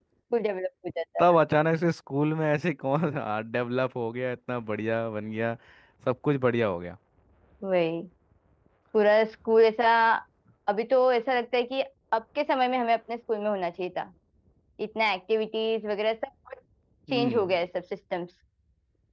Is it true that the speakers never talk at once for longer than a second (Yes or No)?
Yes